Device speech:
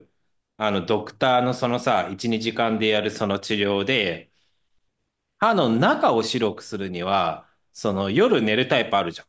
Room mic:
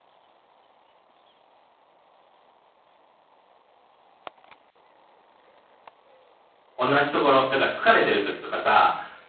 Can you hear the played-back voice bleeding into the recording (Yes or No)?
No